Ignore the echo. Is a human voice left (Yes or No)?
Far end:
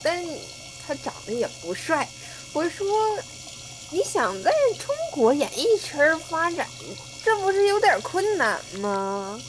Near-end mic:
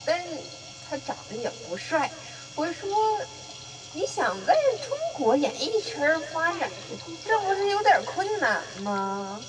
Yes